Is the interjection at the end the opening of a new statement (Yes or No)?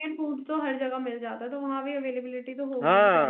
Yes